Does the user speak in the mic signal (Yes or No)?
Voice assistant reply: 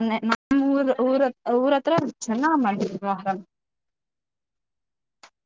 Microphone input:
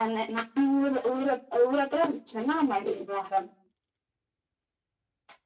No